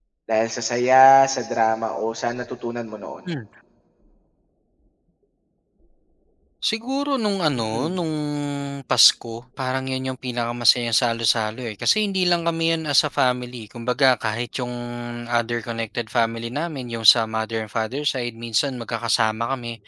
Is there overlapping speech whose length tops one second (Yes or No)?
No